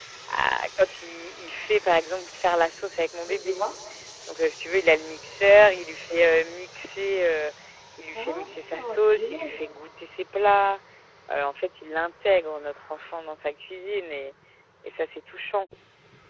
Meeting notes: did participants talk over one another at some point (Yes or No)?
Yes